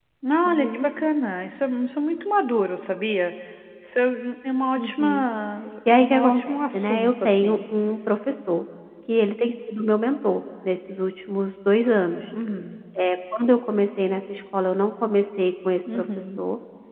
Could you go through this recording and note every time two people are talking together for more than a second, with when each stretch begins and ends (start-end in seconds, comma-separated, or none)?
6.0-7.6